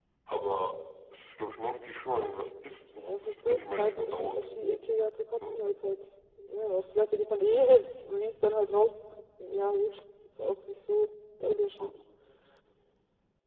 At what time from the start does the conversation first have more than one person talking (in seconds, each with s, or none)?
3.0 s